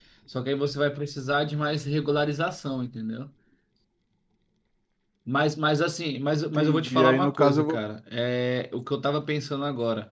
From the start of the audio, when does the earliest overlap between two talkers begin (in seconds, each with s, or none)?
6.5 s